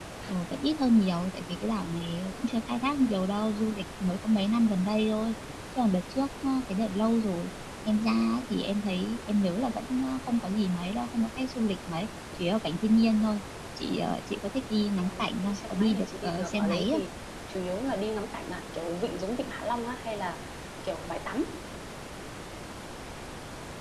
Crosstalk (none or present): present